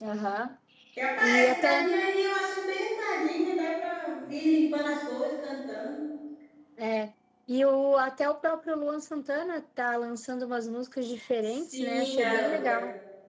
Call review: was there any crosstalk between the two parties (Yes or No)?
Yes